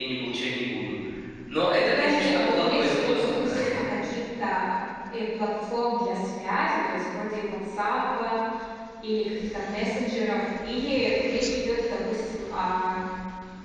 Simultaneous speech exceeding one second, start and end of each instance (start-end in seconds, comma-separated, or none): 1.8-3.5